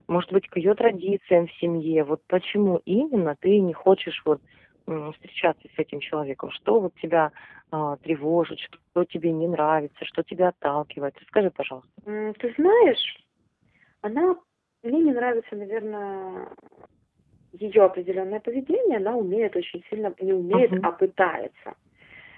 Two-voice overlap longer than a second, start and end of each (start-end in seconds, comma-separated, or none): none